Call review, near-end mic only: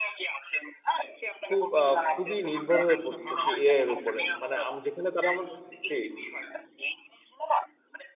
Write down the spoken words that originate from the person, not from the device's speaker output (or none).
খুব আ খুবই নির্ভর হয়ে পড়তেছি এআই এর উপরে। মানে আম যেখানে তারা আমাদের জি।